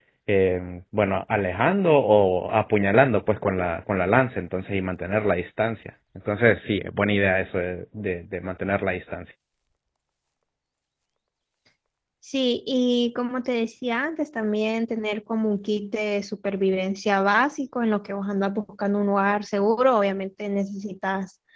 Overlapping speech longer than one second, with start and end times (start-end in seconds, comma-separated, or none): none